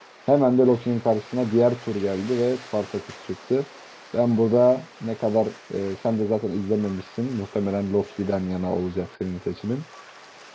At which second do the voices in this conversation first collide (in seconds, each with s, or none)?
none